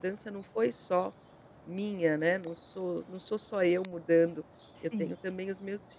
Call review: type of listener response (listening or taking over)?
listening